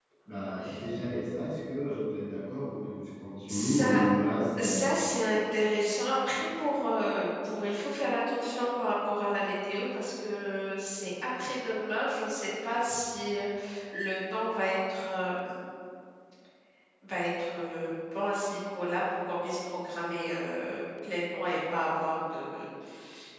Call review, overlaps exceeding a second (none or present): none